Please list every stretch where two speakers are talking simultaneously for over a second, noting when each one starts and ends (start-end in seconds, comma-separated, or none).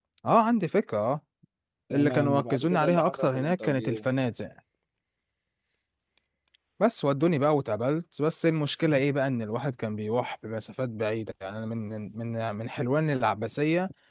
1.9-4.0